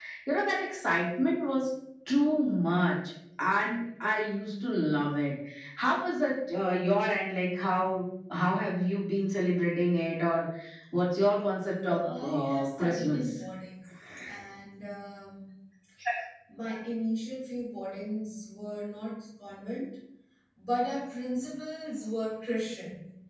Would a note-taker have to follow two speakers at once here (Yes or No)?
Yes